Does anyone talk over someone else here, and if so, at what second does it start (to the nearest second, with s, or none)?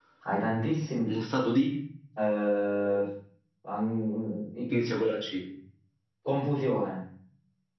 none